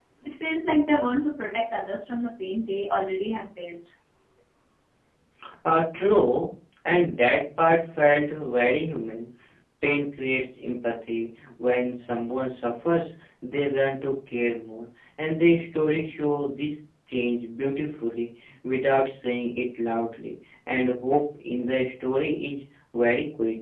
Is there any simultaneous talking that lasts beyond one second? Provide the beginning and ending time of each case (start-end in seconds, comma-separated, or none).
none